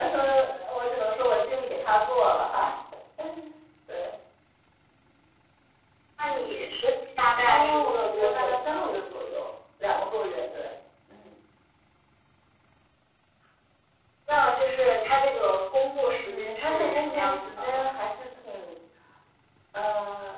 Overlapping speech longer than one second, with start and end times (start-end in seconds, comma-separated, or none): 7.4-8.8, 16.2-17.9